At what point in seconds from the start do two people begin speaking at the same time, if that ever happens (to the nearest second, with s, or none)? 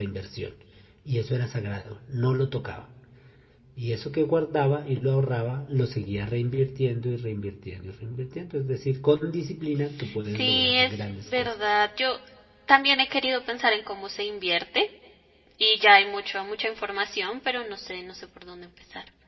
10 s